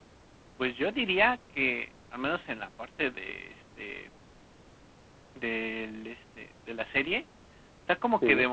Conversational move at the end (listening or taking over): listening